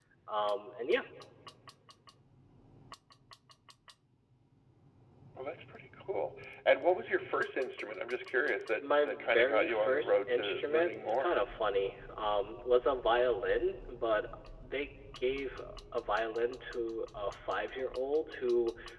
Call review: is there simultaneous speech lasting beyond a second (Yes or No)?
Yes